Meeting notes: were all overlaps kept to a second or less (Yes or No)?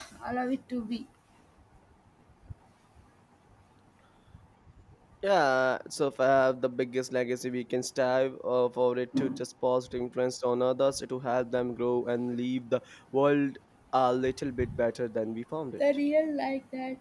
Yes